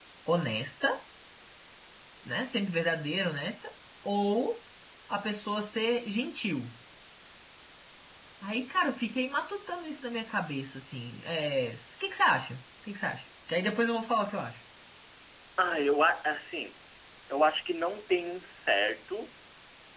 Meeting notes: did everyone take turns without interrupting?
Yes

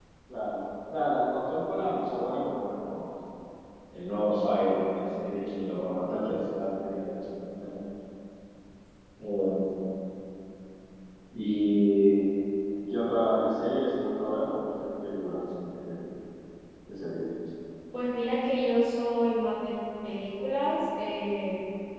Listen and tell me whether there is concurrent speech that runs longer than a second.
No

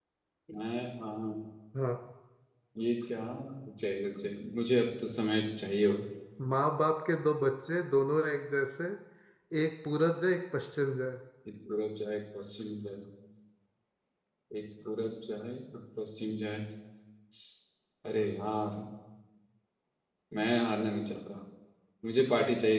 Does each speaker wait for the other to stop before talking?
Yes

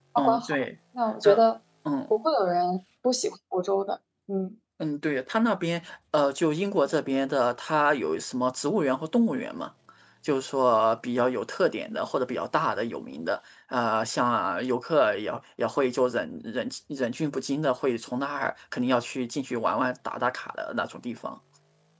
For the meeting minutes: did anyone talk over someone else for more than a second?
No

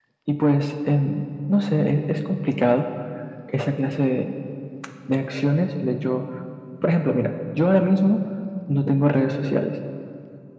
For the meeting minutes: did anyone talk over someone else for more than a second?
No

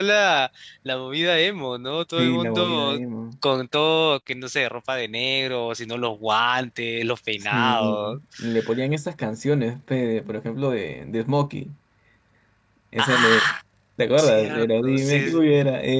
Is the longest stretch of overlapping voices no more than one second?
No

